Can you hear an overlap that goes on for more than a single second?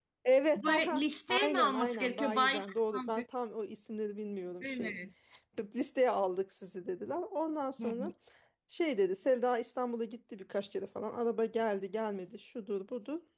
Yes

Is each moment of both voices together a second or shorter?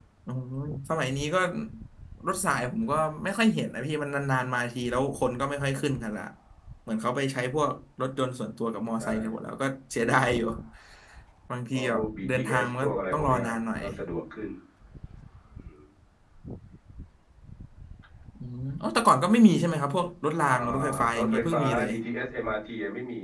No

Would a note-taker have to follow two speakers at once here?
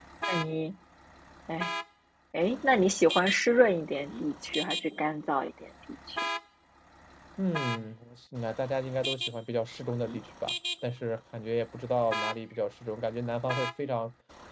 No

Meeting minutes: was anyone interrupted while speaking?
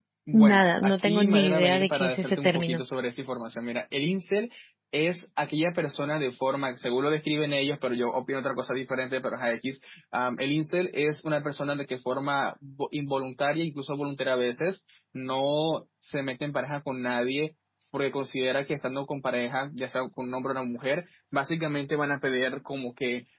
Yes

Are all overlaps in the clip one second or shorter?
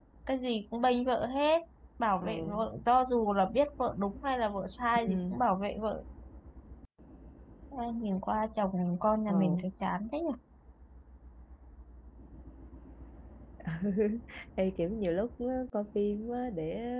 Yes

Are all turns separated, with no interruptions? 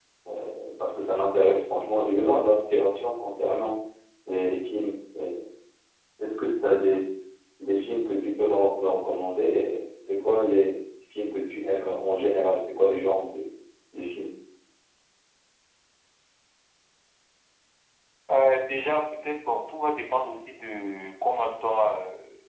Yes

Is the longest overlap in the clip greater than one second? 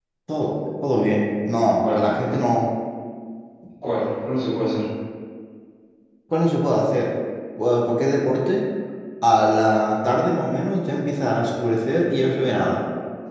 No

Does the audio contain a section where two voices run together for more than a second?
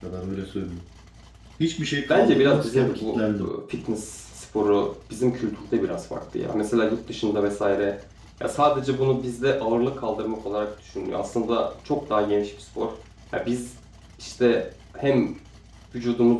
Yes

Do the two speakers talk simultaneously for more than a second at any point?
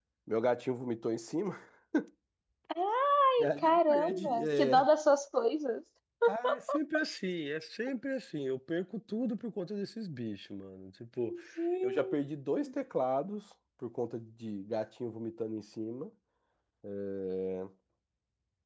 Yes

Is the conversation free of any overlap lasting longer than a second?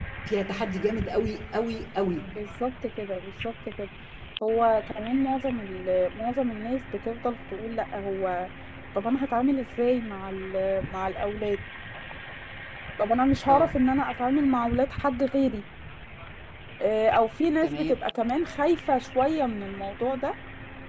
Yes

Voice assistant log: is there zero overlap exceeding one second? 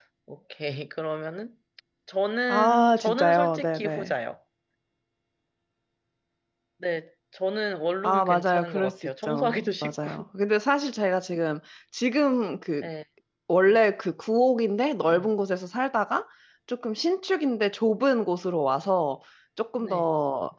No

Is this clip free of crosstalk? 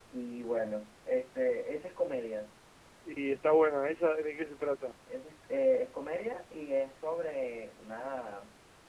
Yes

